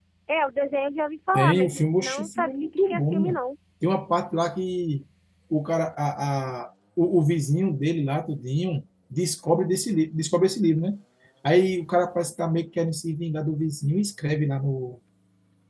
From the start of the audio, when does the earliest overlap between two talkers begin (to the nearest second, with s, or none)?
1 s